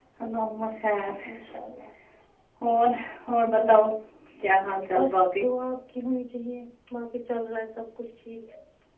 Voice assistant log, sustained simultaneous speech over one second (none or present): none